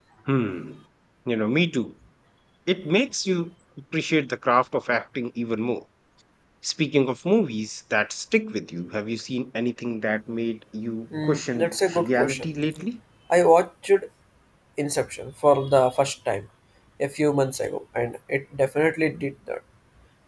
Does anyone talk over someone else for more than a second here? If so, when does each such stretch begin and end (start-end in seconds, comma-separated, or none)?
11.2-12.4